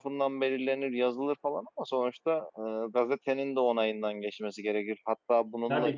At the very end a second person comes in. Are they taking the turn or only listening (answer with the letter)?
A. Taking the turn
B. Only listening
B